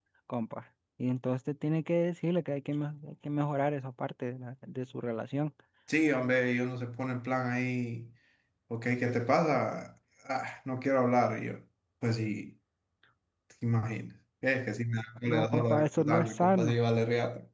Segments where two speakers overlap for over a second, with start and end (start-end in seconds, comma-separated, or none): 15.3-16.8